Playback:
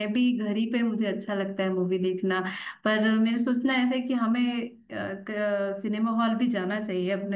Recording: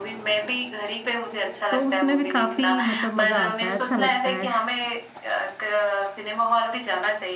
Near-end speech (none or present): present